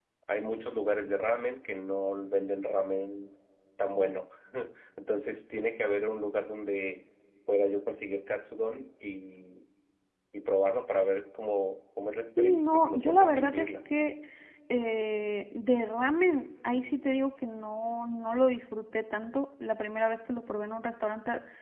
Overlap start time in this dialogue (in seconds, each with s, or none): 12.4 s